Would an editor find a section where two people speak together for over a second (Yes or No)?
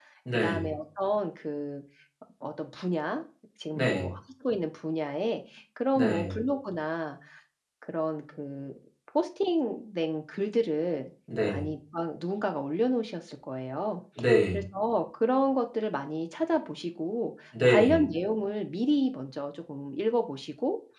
No